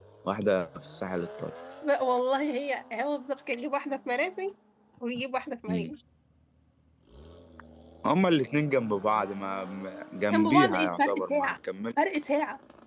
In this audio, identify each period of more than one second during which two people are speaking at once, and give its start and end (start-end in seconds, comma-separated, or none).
10.3-11.5